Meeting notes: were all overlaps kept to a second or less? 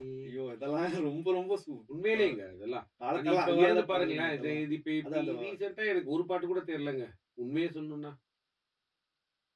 No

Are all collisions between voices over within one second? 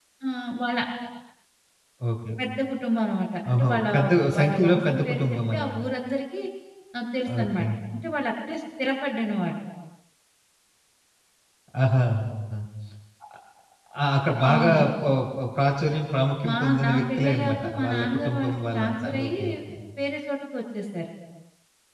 No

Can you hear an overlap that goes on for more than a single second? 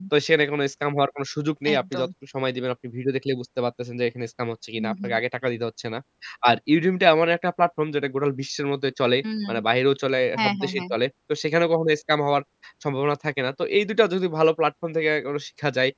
No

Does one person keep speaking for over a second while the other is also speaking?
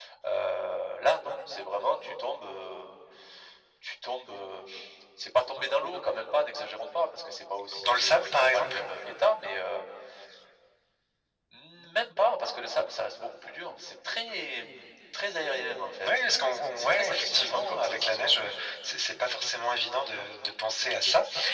Yes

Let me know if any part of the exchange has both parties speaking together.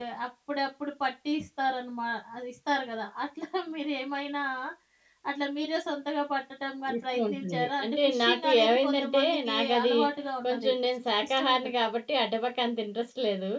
Yes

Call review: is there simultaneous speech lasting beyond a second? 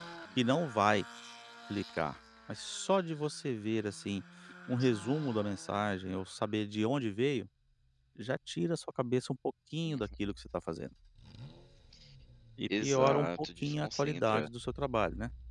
Yes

